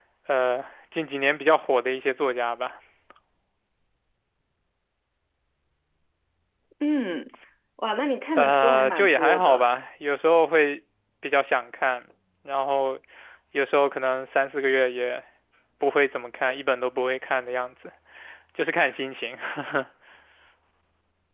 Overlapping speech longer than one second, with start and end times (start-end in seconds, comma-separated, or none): 8.3-9.6